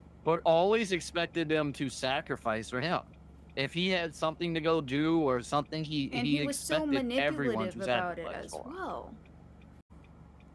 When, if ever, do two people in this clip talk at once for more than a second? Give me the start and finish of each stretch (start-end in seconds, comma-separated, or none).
6.1-8.8